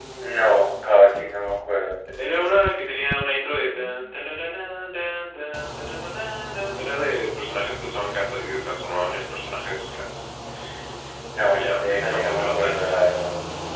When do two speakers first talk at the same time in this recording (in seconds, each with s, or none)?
11.4 s